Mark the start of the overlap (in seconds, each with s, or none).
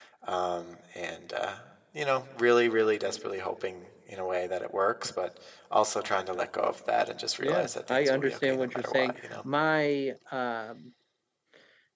7.4 s